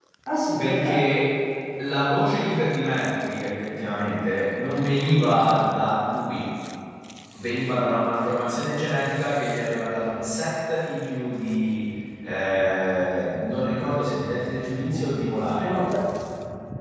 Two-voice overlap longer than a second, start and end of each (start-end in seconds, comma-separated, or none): none